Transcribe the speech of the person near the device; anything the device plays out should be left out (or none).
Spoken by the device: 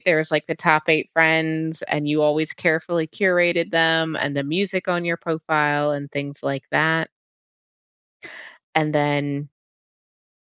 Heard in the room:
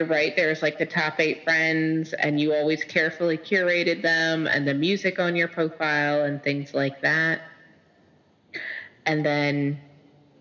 none